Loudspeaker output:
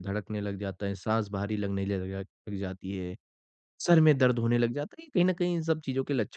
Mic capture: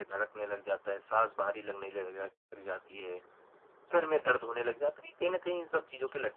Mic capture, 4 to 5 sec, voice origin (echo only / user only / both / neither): echo only